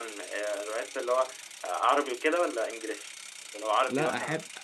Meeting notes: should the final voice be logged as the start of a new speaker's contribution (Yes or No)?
Yes